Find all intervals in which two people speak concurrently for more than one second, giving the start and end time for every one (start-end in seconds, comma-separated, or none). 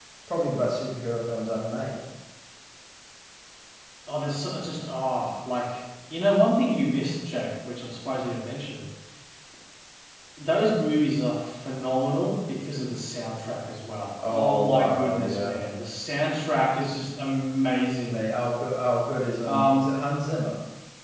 14.3-15.6